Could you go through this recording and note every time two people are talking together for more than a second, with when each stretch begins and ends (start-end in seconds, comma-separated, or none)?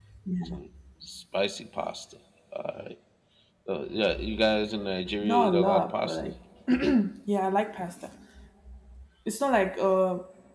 5.0-6.3